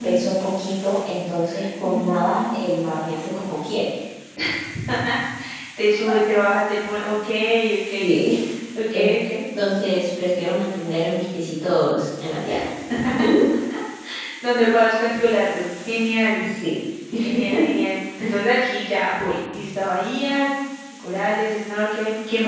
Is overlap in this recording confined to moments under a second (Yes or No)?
No